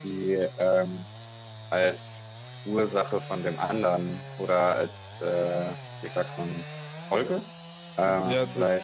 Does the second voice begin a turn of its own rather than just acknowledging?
Yes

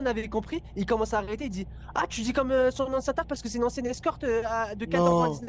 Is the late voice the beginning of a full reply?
No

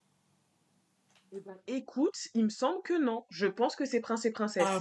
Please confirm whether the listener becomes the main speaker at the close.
No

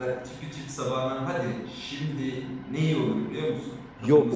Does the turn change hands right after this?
Yes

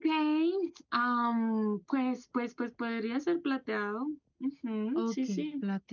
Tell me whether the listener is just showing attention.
No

